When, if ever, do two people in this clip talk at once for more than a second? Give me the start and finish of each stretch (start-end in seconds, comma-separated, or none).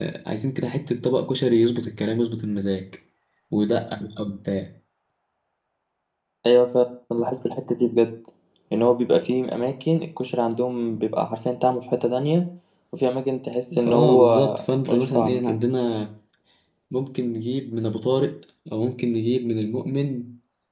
13.9-15.4